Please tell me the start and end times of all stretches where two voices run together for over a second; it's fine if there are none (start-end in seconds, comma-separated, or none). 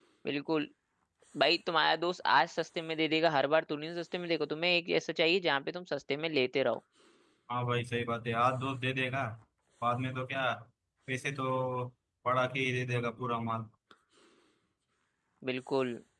none